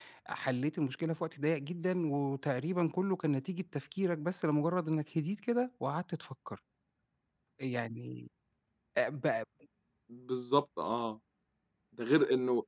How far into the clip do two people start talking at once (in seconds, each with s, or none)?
none